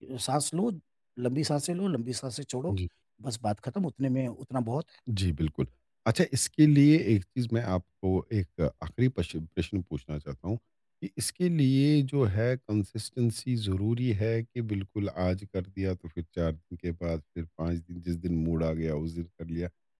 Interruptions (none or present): none